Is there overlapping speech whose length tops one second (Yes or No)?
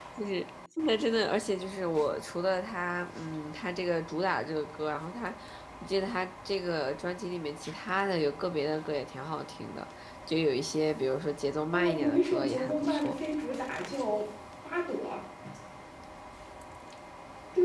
Yes